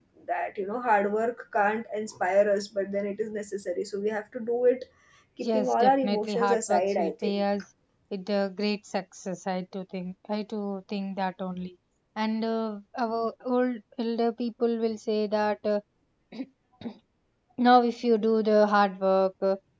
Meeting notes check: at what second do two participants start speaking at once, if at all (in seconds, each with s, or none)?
5.5 s